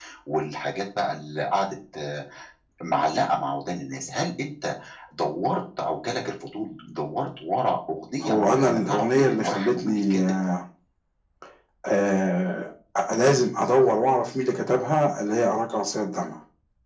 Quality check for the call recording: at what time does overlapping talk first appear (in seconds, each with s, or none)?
8.2 s